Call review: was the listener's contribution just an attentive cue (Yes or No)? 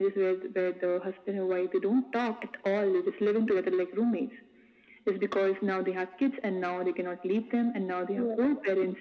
Yes